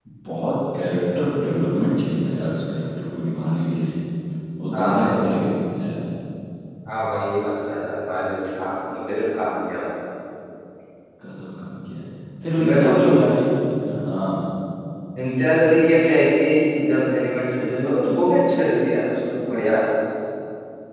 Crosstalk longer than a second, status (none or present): none